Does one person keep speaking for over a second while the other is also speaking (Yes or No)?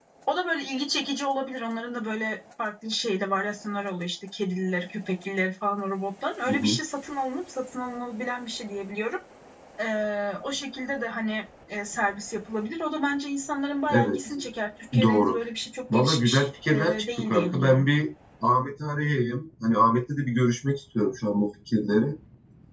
Yes